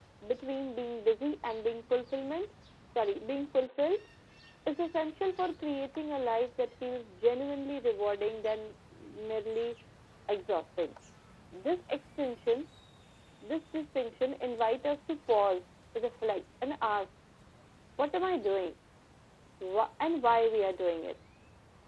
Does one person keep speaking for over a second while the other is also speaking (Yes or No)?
No